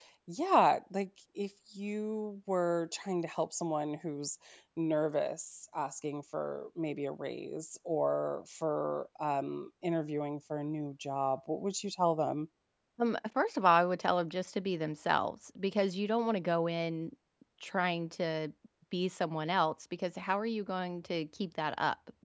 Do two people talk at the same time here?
No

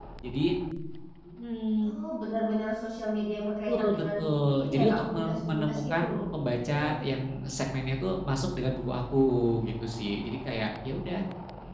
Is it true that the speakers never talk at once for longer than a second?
No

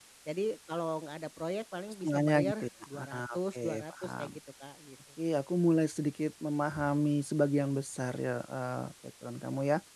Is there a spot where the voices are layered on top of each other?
Yes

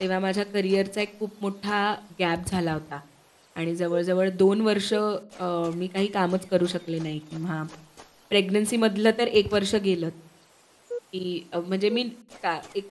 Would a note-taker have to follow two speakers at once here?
No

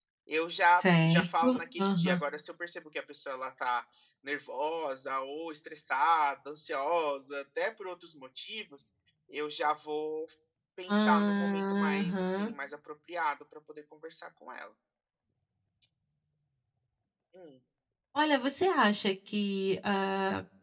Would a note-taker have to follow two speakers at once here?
Yes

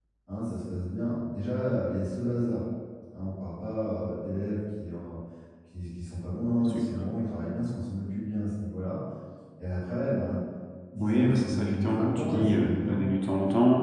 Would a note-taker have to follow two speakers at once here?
Yes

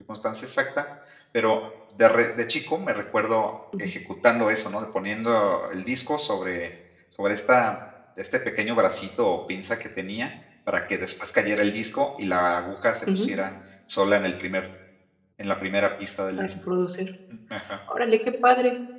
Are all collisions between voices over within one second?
Yes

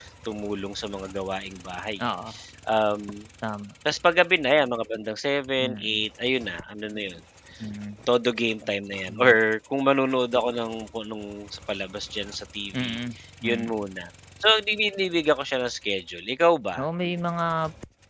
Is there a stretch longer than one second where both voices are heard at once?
No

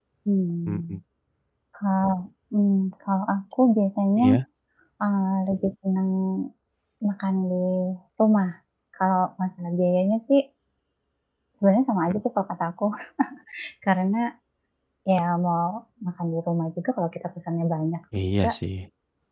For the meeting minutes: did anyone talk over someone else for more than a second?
No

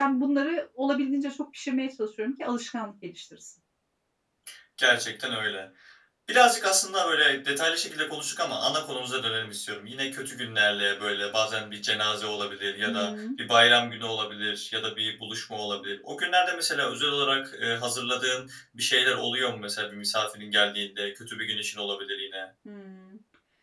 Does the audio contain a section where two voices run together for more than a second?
No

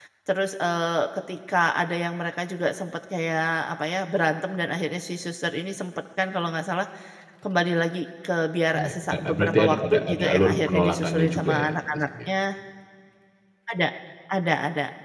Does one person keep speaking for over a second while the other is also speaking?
Yes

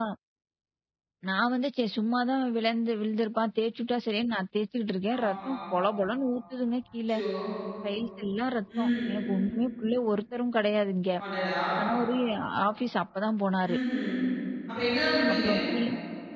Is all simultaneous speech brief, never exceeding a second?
Yes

